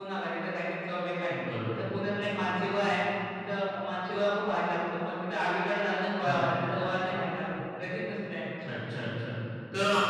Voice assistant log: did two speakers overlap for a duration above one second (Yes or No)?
No